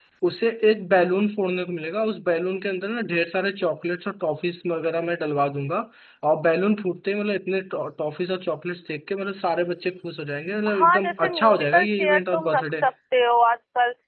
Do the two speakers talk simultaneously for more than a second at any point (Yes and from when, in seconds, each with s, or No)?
Yes, from 10.7 s